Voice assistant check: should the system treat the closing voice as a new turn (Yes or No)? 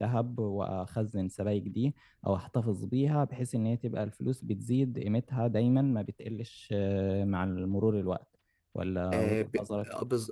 Yes